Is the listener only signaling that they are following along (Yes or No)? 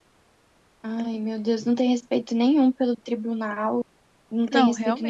Yes